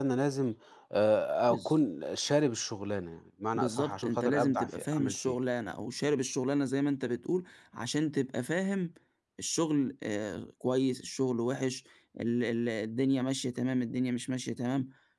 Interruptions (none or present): present